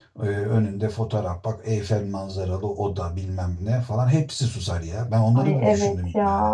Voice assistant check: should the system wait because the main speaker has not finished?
No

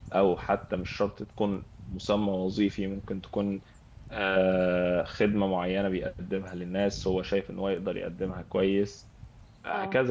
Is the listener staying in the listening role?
Yes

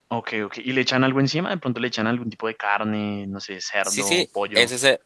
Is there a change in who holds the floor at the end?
Yes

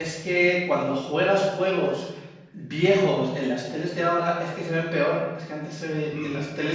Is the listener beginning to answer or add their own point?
No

